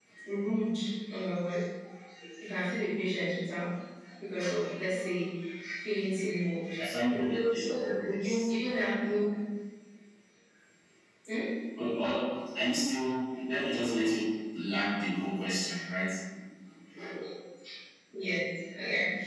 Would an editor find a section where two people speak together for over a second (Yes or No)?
No